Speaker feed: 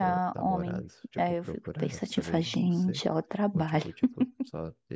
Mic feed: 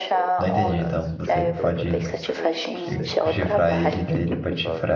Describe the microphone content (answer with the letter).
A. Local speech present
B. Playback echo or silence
A